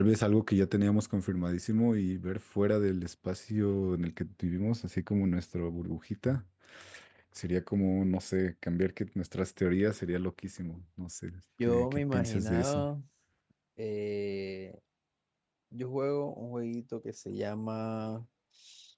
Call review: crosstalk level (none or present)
present